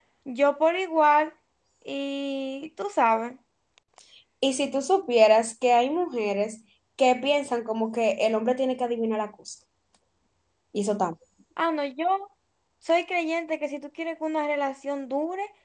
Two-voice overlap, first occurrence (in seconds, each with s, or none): none